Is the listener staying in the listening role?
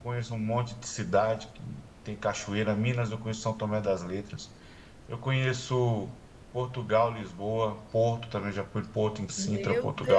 No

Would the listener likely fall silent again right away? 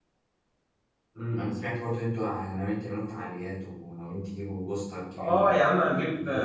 No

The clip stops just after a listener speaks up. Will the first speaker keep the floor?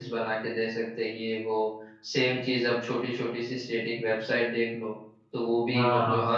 Yes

